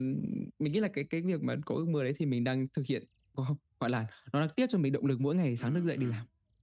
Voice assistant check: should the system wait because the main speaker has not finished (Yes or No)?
No